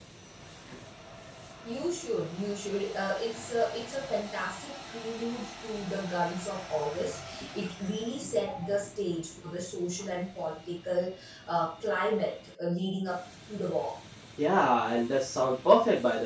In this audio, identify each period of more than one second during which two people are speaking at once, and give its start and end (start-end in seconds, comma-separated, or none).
none